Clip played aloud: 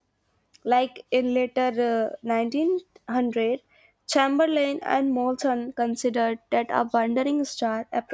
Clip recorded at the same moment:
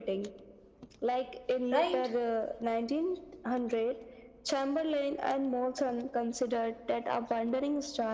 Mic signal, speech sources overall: both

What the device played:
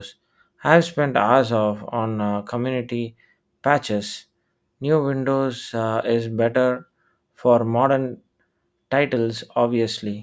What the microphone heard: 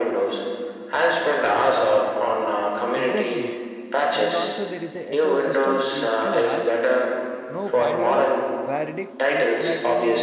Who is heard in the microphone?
both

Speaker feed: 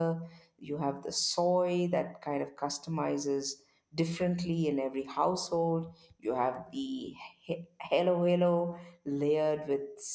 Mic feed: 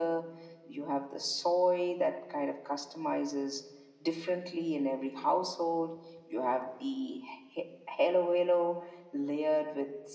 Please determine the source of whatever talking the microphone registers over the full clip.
echo only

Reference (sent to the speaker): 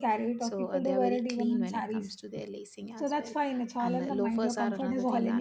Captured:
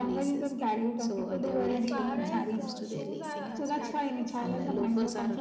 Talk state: both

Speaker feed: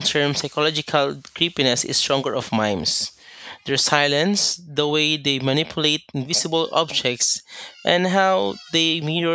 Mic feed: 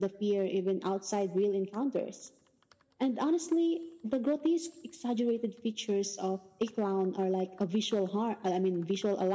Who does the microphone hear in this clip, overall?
user only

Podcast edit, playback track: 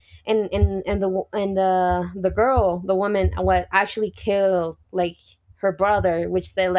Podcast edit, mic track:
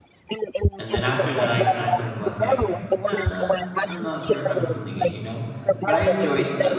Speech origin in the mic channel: both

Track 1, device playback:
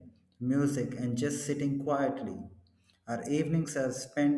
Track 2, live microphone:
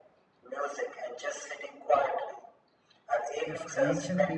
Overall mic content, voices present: both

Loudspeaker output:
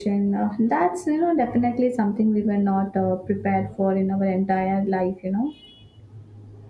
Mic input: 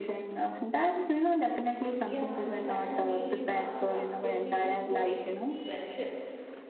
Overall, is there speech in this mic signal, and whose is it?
both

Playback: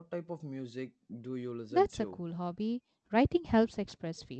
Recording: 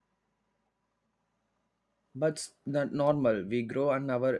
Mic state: user only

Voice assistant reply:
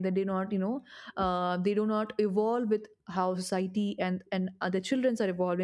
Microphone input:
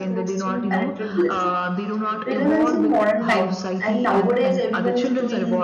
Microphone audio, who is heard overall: both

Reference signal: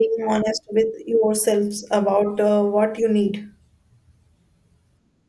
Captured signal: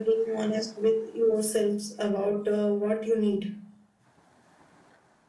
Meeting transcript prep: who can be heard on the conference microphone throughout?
echo only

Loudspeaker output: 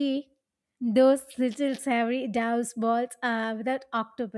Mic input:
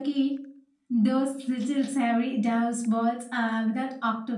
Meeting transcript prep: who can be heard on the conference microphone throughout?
echo only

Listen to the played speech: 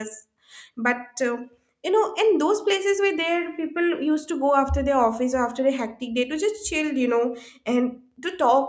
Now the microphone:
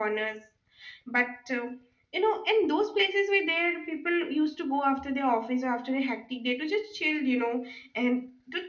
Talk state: echo only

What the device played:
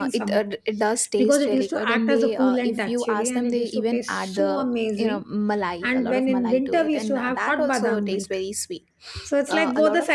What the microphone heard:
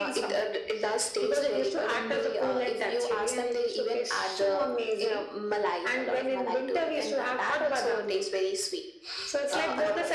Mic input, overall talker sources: echo only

